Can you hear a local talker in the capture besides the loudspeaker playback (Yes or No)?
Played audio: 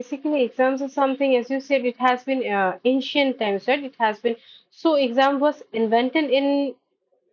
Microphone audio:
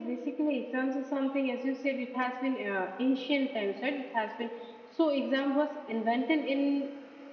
No